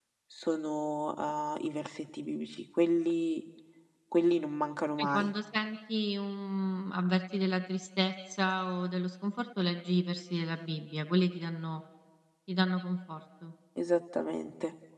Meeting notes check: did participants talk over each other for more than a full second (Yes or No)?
No